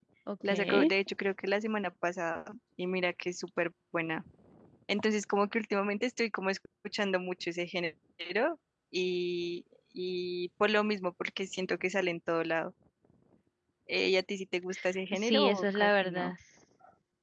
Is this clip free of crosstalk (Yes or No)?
No